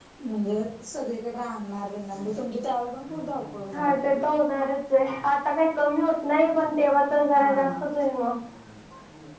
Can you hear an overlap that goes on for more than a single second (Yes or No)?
No